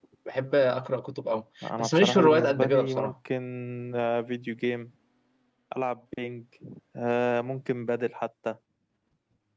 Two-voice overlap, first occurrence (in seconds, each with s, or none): 1.6 s